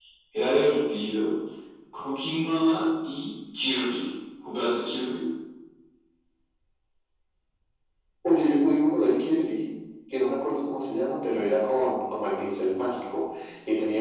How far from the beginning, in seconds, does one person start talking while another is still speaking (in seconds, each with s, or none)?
none